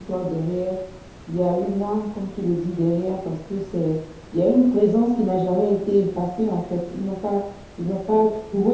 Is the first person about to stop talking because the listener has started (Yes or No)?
No